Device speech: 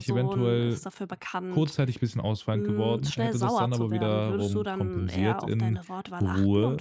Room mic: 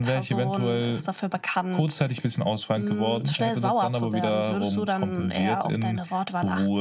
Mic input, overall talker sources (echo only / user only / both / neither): echo only